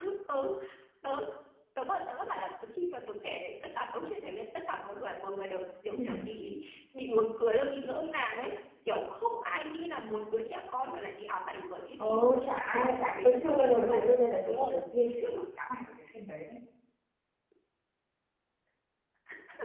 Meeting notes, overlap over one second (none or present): present